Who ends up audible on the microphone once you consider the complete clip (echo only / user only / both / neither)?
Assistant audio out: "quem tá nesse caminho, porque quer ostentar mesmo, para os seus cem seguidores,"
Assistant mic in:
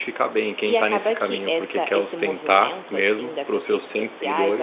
both